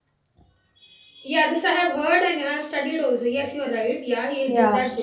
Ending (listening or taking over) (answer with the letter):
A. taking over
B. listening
A